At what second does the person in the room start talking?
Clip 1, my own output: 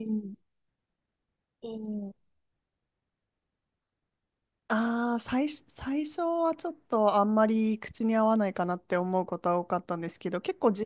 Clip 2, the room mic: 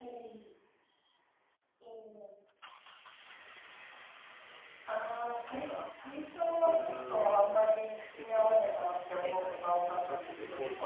5.5 s

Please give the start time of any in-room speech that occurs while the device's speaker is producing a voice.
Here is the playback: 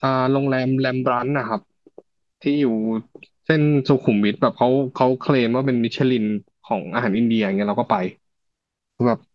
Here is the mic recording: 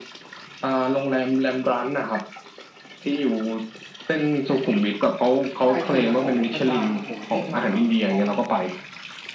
5.6 s

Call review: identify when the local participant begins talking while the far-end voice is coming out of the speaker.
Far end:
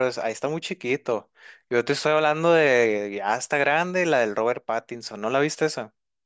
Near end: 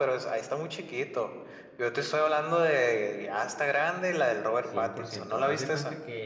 4.6 s

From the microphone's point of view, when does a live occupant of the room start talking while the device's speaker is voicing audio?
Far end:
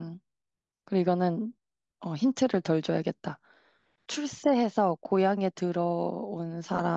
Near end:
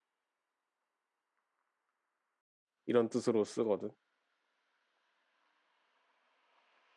2.8 s

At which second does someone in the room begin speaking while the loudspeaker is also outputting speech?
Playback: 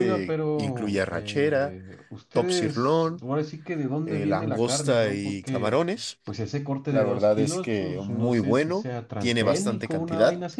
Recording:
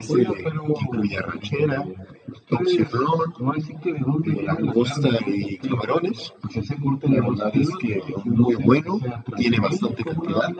none

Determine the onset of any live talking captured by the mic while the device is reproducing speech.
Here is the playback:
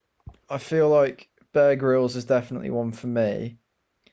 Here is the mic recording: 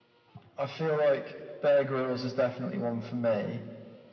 none

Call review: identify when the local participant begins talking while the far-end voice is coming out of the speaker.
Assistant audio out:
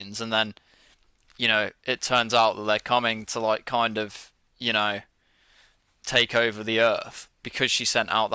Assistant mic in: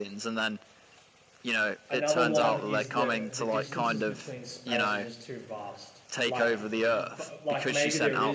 1.9 s

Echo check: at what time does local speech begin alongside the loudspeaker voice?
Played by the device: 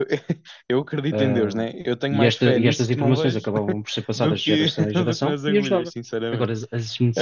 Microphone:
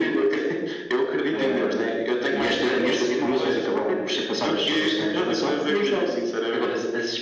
none

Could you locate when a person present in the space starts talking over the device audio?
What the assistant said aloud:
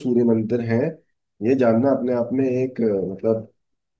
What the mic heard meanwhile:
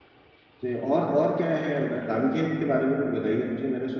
0.6 s

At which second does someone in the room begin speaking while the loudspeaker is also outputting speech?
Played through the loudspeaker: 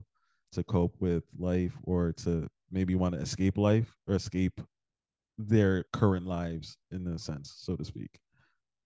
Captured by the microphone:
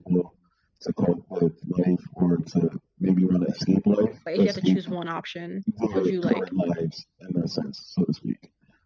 4.2 s

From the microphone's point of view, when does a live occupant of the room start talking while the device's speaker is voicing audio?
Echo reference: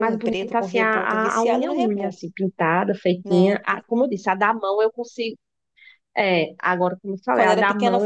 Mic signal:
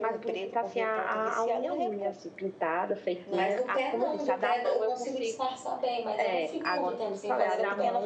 3.3 s

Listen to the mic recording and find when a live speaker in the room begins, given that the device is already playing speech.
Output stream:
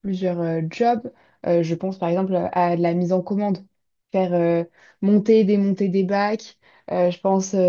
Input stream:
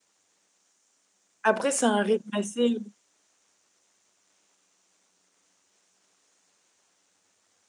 1.4 s

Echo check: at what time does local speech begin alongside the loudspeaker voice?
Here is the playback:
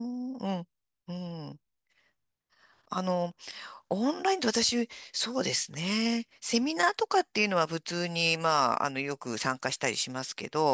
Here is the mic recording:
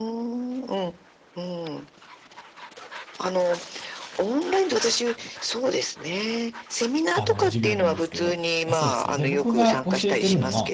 7.2 s

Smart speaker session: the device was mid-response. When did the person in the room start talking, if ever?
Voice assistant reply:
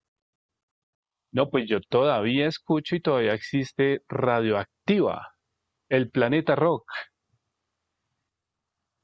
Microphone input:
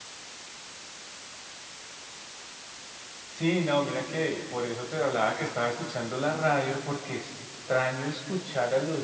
3.2 s

